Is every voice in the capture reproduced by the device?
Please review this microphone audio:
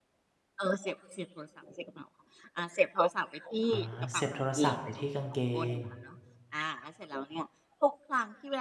No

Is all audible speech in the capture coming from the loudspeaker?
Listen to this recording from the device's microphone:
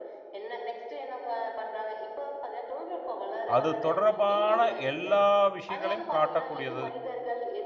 No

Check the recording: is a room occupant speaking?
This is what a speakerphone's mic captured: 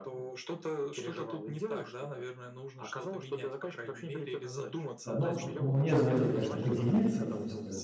Yes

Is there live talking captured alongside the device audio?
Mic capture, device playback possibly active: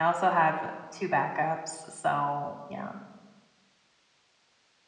Yes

